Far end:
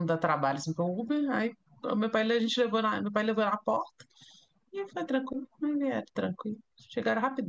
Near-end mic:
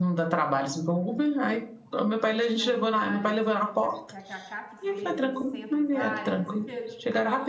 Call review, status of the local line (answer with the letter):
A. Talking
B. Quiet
A